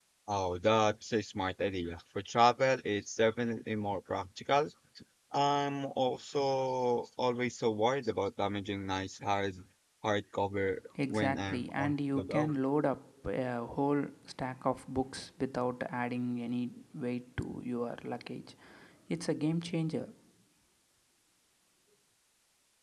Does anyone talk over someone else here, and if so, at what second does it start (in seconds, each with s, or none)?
10.9 s